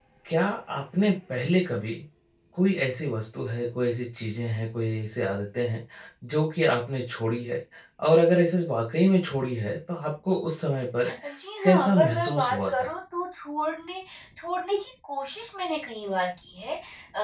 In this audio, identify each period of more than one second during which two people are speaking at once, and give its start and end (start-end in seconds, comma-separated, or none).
11.6-12.9